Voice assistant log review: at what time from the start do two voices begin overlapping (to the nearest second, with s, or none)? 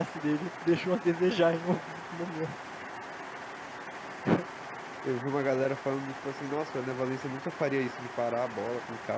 none